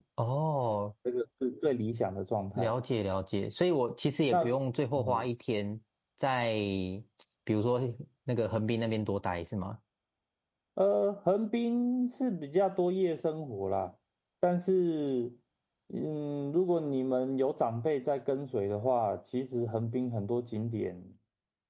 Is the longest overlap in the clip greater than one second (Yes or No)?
No